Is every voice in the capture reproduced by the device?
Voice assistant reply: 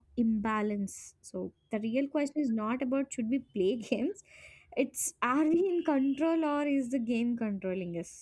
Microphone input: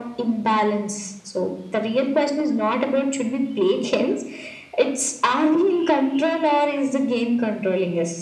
Yes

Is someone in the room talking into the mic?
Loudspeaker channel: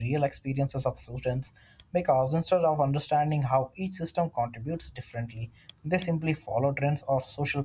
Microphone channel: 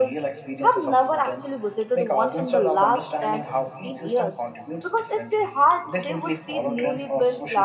Yes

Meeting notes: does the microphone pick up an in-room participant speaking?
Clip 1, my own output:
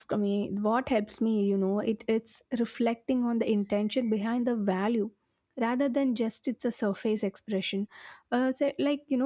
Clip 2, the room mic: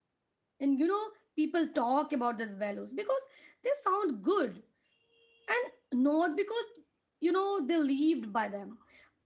Yes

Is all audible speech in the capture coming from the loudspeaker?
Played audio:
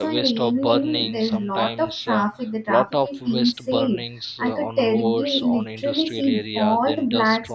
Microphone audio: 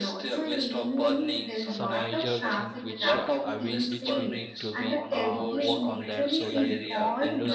No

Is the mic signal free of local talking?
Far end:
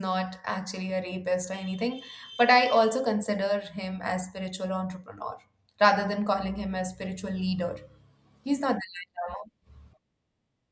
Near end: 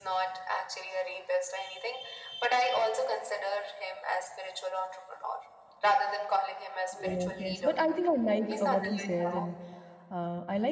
No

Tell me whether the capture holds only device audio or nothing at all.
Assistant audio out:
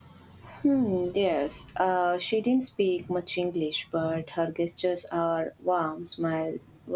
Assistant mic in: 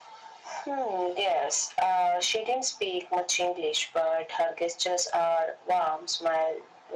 Yes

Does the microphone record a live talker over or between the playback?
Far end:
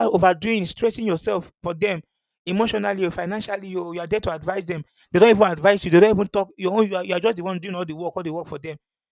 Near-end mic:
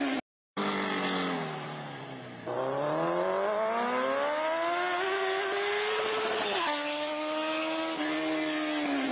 No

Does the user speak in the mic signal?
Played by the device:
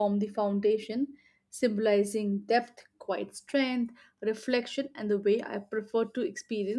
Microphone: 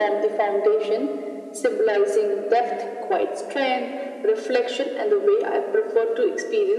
No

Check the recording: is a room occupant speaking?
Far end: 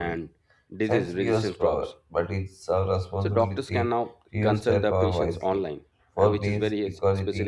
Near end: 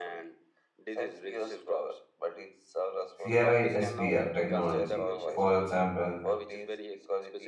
Yes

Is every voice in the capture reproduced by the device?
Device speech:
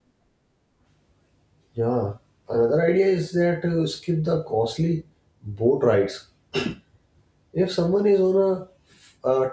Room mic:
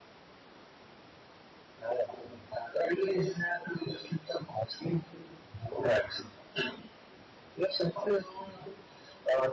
Yes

